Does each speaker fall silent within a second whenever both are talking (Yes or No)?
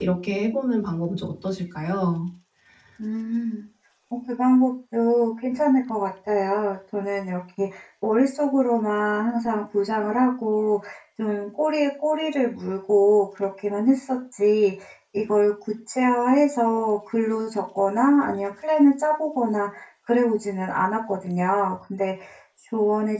Yes